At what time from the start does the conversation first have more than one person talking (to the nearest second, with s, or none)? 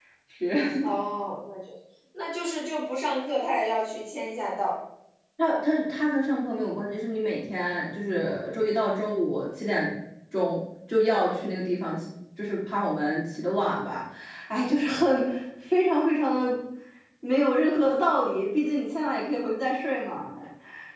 none